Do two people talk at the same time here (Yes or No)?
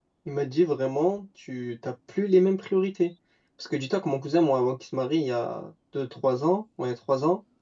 No